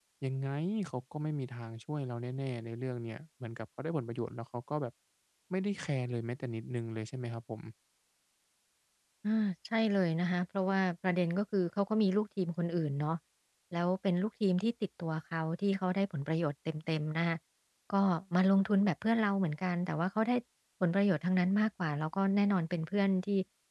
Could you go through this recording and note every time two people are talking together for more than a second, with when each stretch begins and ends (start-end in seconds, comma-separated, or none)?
none